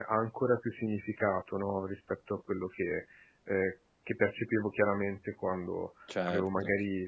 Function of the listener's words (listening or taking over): listening